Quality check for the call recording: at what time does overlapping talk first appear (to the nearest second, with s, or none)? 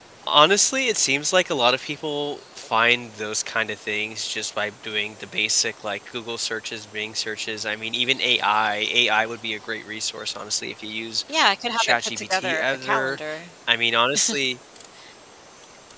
12 s